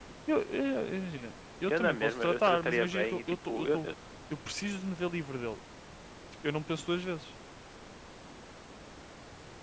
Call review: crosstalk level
present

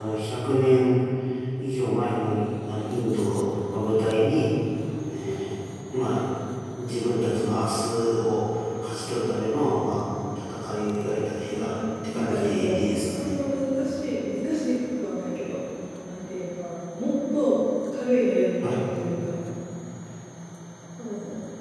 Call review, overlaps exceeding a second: present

